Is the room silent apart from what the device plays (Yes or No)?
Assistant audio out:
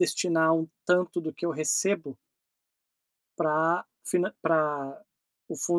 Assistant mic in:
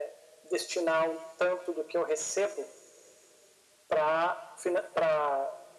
Yes